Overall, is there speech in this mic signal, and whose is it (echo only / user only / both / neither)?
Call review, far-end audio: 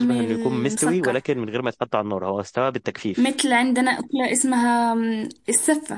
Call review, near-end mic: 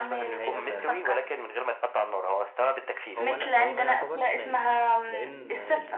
both